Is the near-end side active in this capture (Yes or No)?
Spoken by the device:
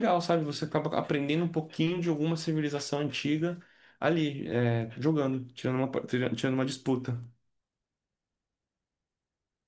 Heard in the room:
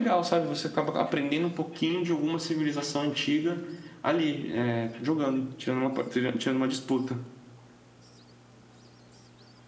No